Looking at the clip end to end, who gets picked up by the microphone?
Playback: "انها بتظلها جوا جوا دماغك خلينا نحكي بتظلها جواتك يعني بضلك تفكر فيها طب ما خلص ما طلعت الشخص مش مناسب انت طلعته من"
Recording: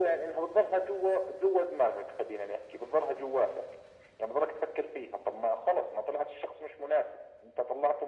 echo only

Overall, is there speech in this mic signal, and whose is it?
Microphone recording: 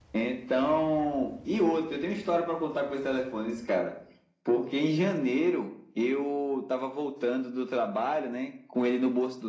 echo only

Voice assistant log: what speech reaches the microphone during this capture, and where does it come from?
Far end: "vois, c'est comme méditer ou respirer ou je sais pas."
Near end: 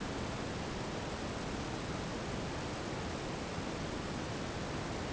neither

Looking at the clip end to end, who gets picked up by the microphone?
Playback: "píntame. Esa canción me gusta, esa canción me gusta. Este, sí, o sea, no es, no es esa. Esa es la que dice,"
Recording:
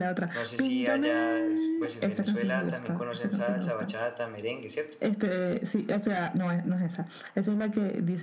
both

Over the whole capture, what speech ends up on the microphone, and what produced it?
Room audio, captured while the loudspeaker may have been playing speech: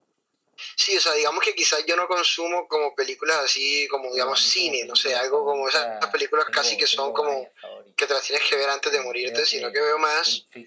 both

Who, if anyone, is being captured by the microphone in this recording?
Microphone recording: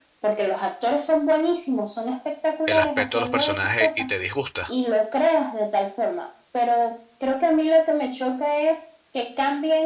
both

